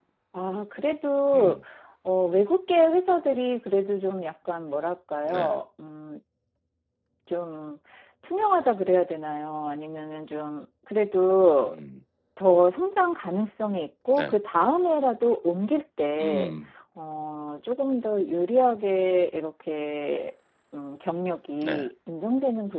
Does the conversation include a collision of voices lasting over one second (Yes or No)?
No